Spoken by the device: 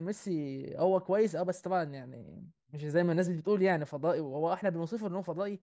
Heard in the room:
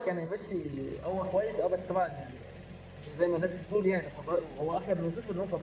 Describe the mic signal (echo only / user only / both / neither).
echo only